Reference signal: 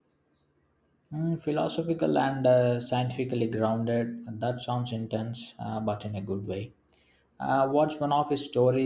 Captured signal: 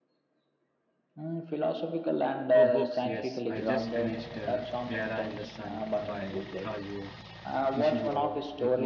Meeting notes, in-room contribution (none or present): present